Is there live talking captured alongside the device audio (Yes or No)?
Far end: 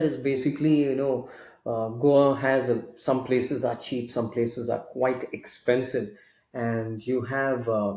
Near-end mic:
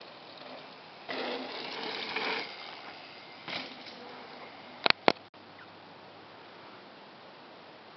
No